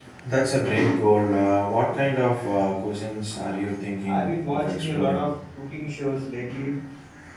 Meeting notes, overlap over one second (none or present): present